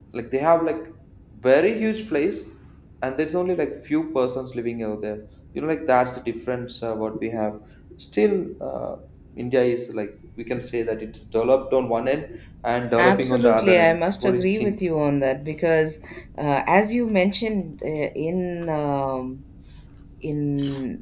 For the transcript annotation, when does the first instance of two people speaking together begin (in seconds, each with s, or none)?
13.0 s